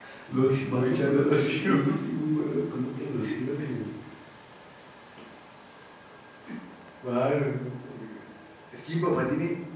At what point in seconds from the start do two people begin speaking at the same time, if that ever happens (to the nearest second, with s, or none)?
1 s